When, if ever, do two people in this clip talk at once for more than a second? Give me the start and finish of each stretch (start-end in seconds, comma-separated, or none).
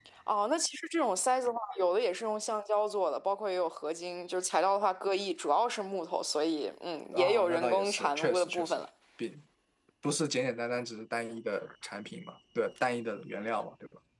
7.1-8.8